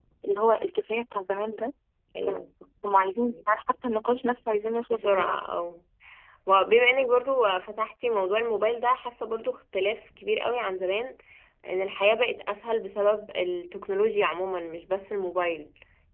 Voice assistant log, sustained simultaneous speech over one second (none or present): none